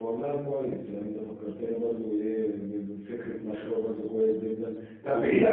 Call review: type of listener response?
listening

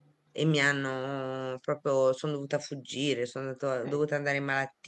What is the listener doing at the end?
listening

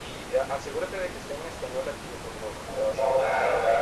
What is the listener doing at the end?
taking over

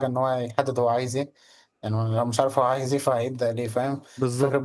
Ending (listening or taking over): listening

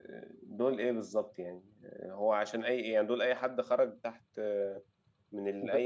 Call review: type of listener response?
listening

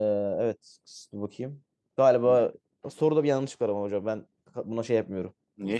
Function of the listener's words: taking over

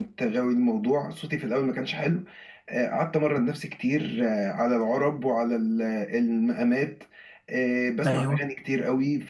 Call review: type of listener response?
listening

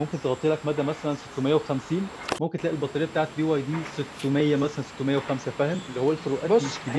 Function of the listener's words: taking over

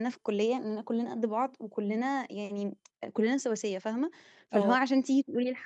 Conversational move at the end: listening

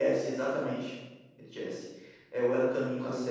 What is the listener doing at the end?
listening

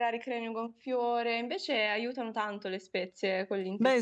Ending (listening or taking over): taking over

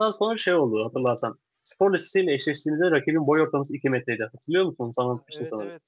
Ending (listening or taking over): taking over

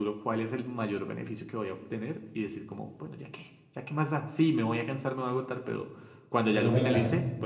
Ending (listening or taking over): listening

